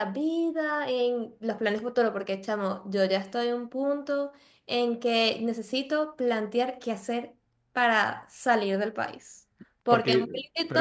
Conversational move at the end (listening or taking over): taking over